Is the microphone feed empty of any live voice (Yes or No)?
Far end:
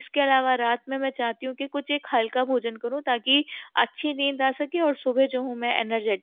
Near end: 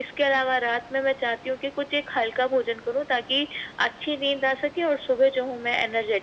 Yes